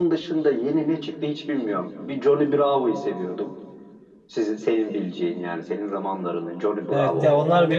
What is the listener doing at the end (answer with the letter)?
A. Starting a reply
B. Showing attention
A